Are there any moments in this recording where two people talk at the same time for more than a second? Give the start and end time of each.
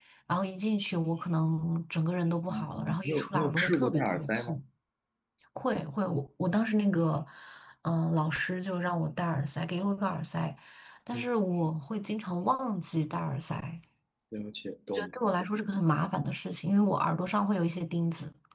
2.5-4.6

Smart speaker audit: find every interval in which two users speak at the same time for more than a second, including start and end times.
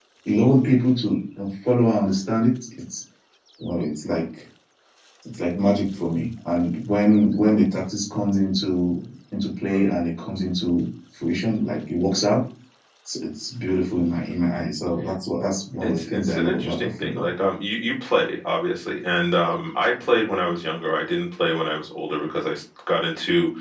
15.8-17.2

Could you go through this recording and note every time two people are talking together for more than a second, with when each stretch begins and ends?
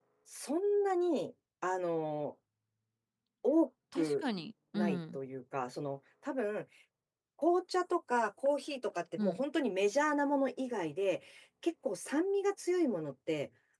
none

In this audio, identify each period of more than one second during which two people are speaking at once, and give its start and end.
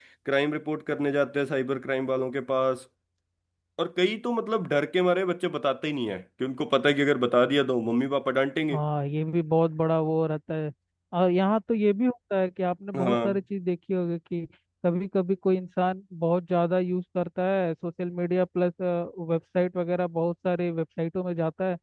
none

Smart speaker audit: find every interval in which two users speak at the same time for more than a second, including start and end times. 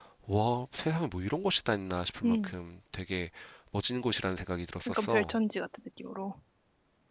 none

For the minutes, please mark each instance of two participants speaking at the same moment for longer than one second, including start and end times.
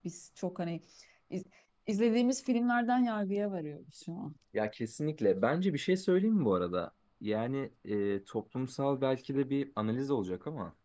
none

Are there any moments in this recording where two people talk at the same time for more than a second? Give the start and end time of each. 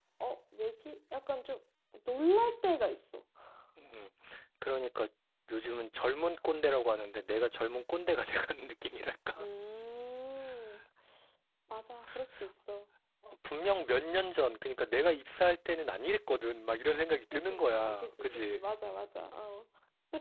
17.3-18.6

